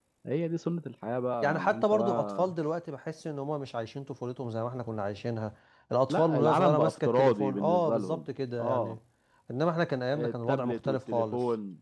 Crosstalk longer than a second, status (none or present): present